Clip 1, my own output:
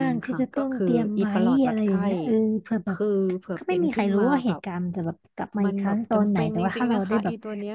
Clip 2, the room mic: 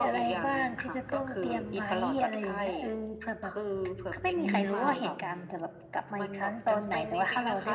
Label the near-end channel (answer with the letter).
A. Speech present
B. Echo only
A